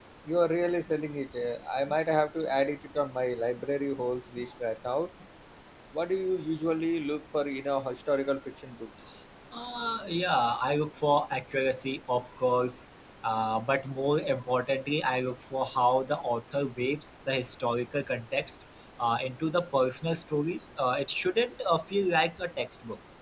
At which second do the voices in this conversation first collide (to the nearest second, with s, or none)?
none